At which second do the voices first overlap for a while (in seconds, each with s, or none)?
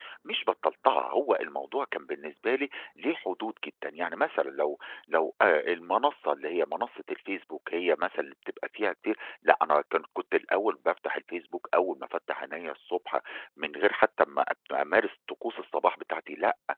none